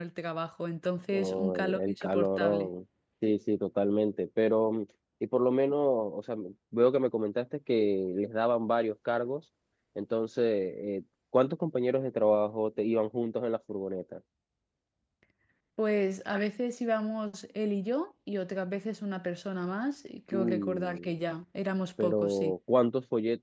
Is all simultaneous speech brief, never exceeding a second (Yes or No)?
No